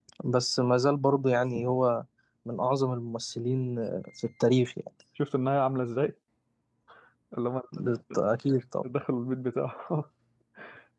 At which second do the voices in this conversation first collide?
none

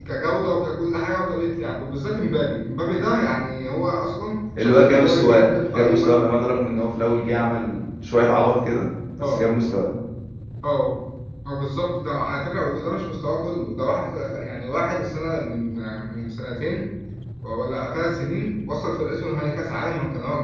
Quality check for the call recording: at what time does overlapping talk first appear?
4.6 s

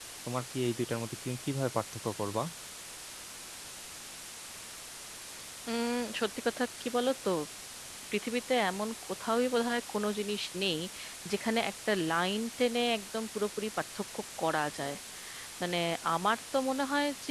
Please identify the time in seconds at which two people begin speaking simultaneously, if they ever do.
none

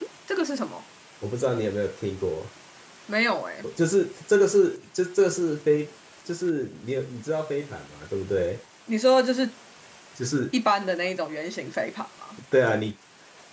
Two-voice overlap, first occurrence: none

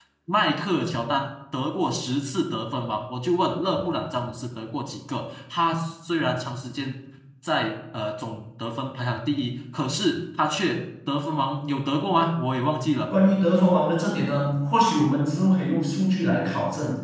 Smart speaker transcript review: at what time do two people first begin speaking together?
none

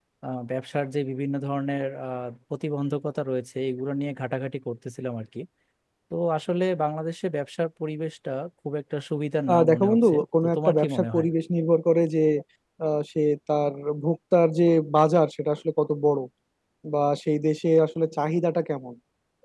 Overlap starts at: 9.5 s

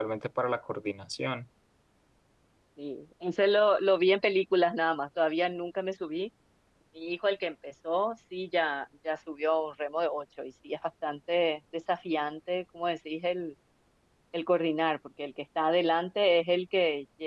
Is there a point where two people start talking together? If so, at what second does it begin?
none

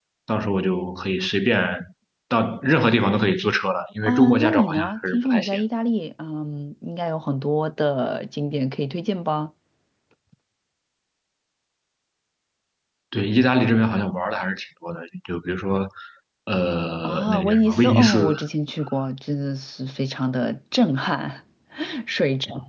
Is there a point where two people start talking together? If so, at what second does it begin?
4.0 s

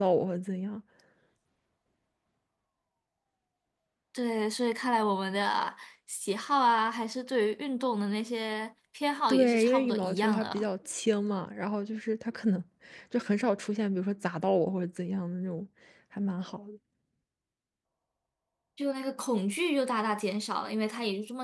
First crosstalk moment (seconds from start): 9.3 s

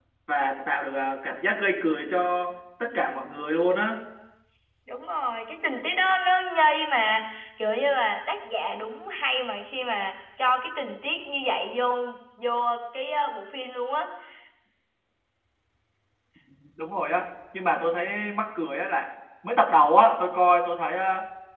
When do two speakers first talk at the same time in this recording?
none

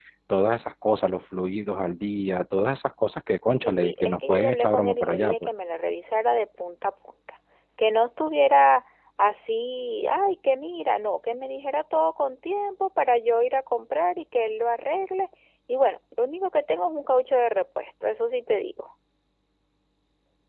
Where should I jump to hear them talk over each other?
3.6 s

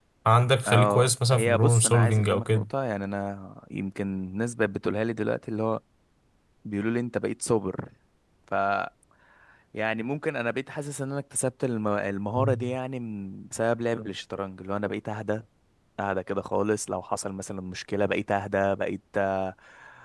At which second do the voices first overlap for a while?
0.7 s

